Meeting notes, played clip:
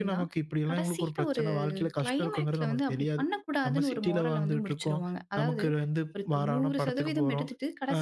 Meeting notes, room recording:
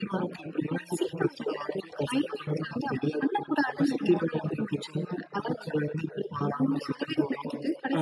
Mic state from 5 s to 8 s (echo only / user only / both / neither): echo only